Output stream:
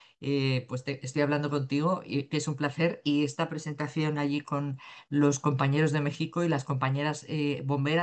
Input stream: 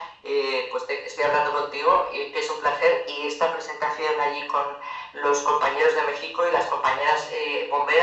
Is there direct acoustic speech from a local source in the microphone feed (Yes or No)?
No